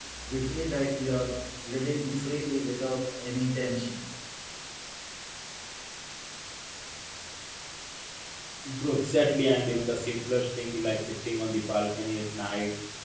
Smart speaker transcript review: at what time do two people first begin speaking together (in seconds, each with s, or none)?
none